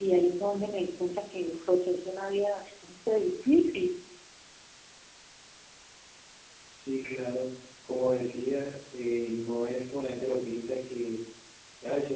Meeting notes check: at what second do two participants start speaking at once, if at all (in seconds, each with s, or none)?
none